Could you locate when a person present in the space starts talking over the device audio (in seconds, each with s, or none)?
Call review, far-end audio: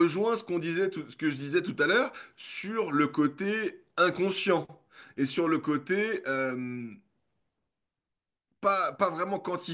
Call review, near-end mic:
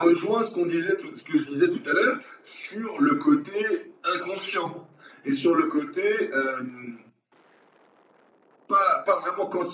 none